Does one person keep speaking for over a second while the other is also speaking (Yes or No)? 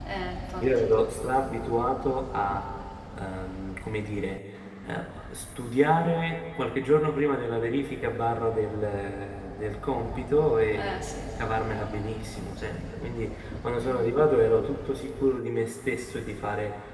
No